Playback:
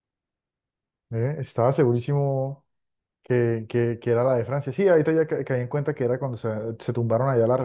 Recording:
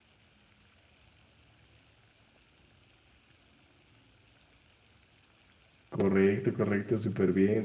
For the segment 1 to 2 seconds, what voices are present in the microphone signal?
neither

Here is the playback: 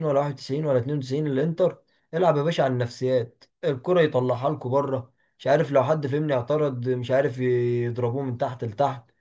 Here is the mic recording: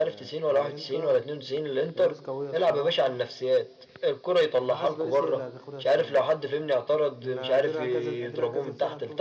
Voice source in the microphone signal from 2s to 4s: both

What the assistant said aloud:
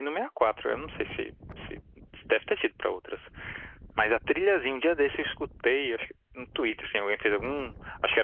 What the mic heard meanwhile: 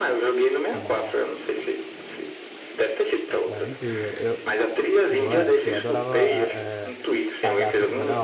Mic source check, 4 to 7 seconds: both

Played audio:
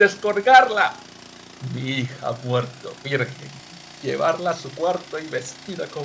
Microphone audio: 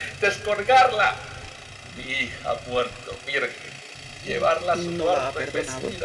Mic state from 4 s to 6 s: both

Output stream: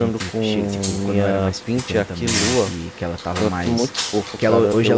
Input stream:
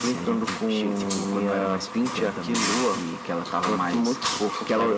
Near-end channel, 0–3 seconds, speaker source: echo only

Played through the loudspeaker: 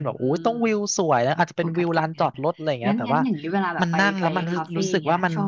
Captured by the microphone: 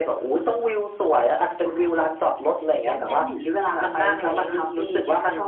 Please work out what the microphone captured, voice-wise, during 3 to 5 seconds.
echo only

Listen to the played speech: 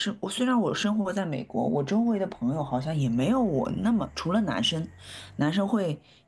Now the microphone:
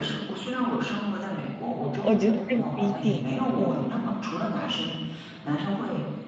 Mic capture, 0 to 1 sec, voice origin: echo only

